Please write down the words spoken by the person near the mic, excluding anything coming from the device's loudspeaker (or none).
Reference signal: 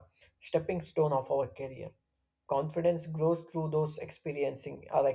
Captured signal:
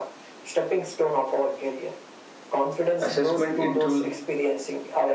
assessment intru-